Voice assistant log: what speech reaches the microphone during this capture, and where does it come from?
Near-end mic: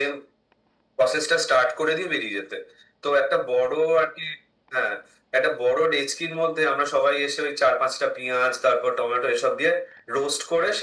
echo only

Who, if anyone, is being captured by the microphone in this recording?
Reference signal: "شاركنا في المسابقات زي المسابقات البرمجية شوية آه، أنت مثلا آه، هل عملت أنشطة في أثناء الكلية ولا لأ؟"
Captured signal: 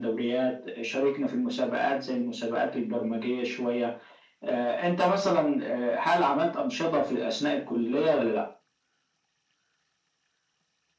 echo only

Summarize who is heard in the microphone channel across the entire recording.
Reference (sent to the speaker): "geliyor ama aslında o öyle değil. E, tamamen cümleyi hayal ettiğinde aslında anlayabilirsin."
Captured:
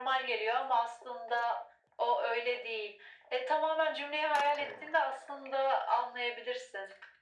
both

